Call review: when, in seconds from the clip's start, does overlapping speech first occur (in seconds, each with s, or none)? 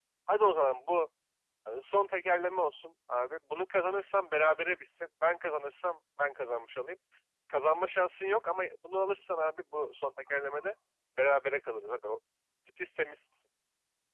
none